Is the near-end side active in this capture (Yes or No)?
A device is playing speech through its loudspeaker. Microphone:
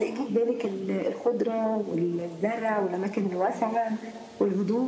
No